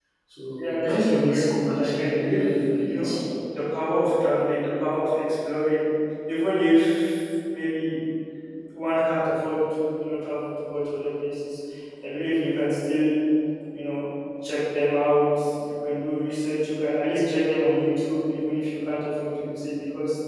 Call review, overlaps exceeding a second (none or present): present